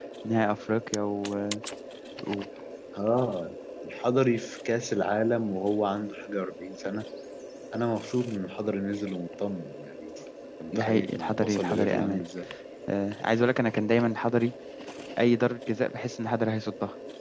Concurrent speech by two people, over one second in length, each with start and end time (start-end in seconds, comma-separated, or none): 10.7-12.2